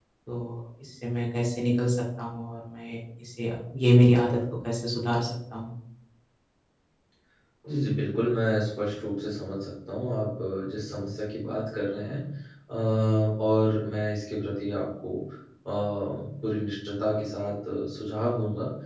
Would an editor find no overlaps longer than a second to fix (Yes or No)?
Yes